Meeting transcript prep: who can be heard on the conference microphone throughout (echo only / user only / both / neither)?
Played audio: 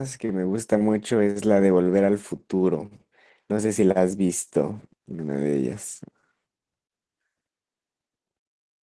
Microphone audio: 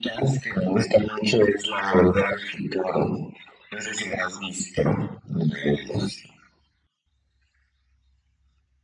echo only